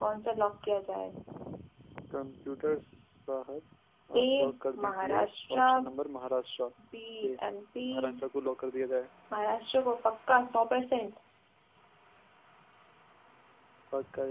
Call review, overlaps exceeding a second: none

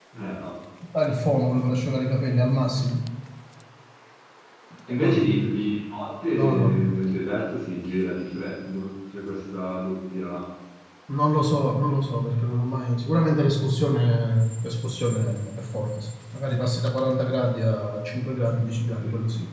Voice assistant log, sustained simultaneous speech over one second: none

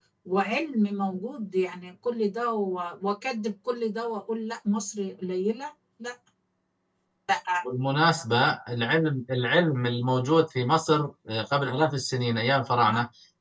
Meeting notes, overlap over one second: none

